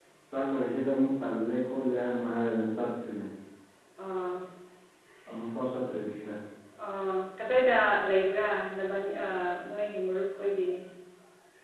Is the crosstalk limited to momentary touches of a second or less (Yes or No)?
Yes